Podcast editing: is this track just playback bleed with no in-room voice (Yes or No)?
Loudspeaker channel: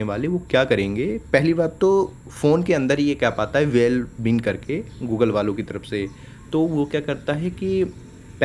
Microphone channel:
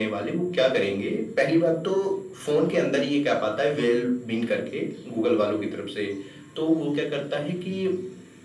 Yes